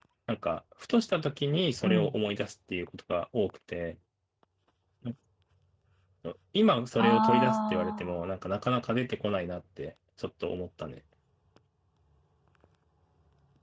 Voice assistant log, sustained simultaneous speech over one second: present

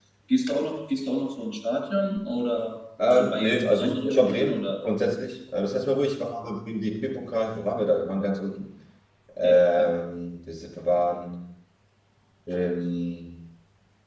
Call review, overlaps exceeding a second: present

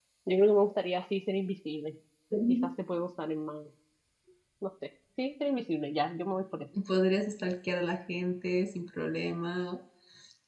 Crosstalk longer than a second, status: none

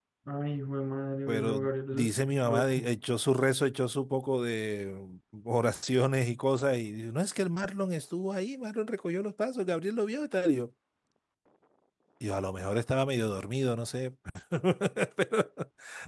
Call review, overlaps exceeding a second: present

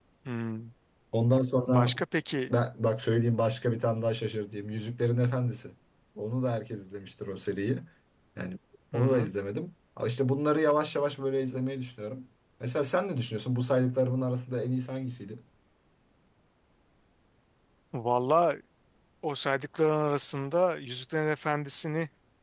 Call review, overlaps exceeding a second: none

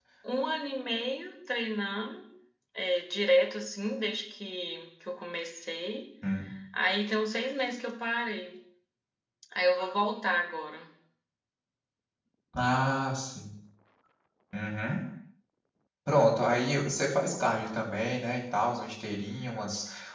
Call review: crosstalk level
none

